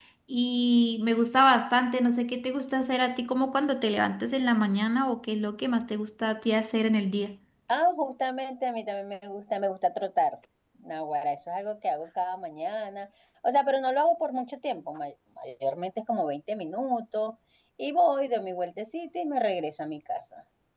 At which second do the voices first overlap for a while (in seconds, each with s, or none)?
none